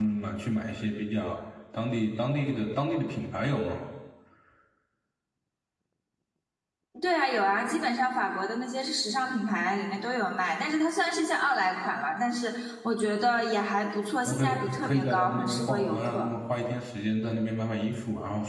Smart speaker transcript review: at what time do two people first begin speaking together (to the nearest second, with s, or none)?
14 s